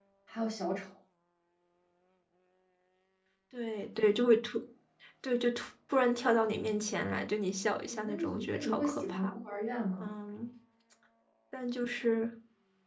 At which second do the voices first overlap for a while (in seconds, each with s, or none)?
7.9 s